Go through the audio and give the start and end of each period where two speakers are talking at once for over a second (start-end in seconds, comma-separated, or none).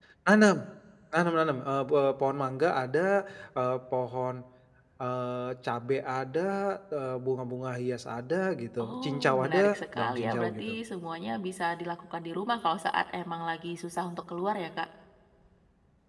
8.8-10.7